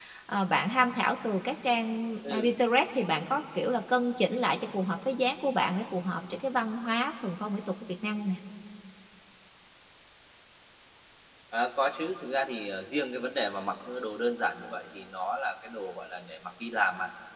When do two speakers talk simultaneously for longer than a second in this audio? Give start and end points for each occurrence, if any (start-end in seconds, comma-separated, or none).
none